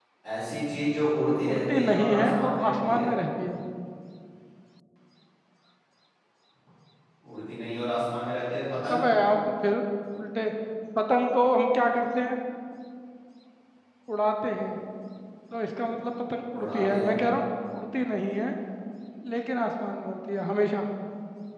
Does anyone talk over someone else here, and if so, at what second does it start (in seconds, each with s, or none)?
1.5 s